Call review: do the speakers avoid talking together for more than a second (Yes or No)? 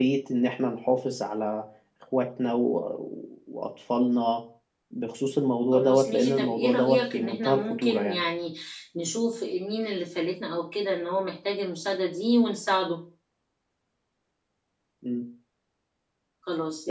No